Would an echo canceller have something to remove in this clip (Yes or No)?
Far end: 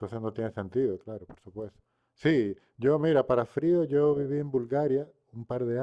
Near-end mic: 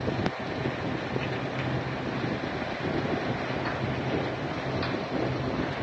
No